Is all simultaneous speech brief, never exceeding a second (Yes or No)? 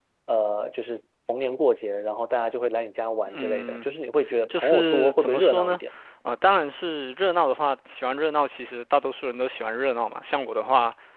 No